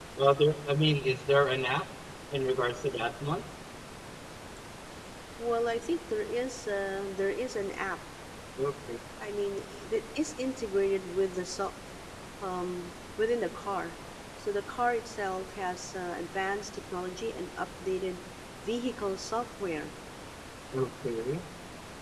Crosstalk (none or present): none